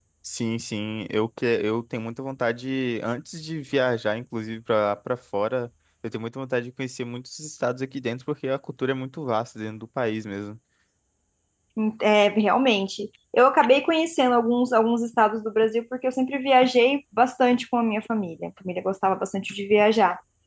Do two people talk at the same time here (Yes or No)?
No